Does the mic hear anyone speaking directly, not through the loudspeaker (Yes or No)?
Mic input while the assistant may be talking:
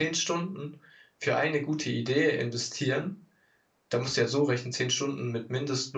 Yes